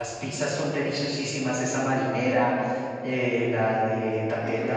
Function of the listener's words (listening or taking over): listening